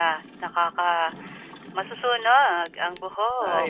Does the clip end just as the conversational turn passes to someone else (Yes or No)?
Yes